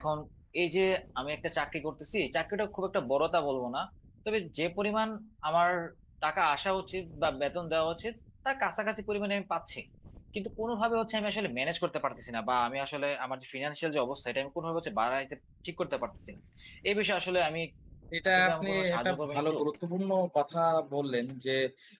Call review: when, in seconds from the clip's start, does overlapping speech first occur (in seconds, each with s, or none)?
18.3 s